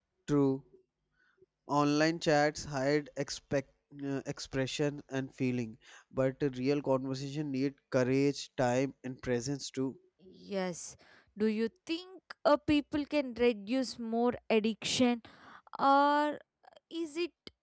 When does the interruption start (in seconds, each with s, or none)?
none